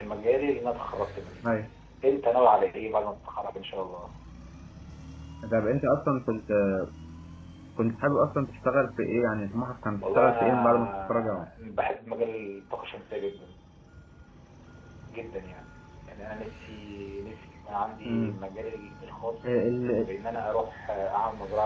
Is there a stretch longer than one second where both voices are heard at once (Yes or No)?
Yes